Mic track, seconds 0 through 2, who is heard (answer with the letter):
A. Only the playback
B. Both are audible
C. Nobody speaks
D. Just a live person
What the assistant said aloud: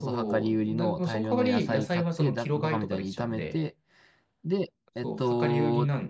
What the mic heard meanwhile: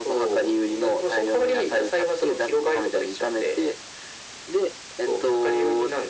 A